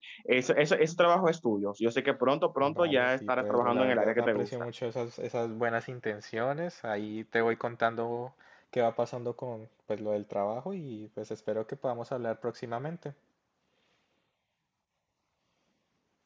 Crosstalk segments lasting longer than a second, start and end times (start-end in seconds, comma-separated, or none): 2.7-4.5